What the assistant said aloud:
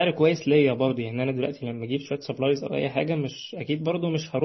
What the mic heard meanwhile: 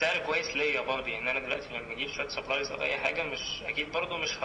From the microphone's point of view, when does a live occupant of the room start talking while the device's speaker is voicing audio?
none

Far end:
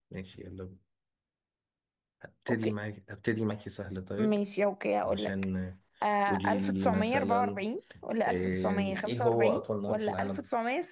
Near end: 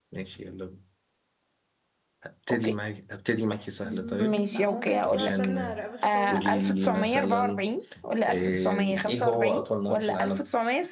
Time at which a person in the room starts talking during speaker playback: 3.8 s

